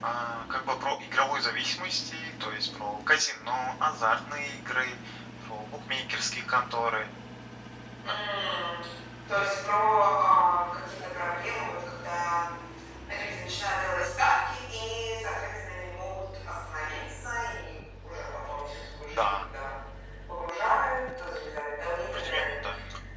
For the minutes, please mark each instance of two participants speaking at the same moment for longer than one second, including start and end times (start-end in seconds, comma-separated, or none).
none